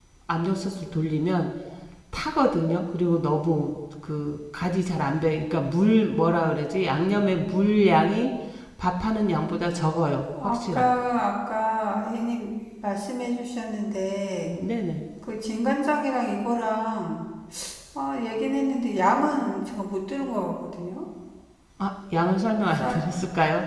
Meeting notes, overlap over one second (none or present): none